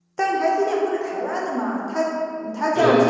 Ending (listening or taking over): listening